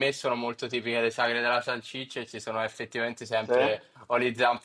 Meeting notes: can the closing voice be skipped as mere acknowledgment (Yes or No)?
Yes